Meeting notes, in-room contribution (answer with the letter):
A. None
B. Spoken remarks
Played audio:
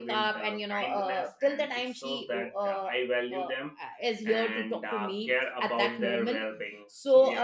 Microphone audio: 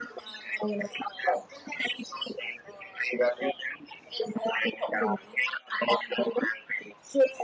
A